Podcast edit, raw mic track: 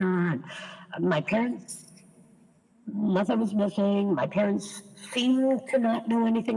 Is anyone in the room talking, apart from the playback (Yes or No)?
No